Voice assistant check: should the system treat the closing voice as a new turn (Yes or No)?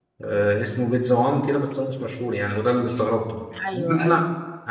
No